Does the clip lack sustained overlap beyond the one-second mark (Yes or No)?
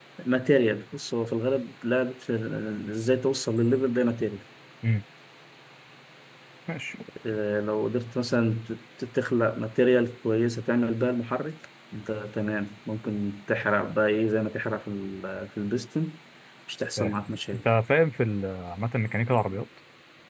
Yes